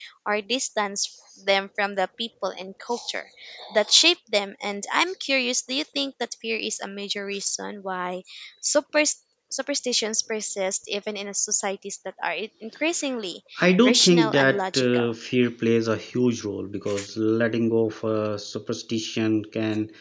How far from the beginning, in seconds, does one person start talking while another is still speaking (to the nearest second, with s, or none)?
14 s